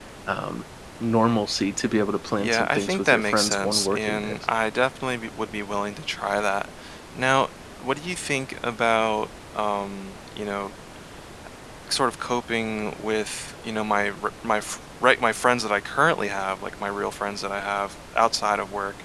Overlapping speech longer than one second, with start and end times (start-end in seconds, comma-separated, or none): 2.4-4.3